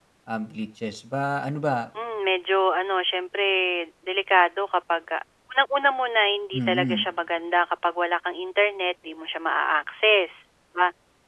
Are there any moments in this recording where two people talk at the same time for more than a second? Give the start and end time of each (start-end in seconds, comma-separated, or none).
none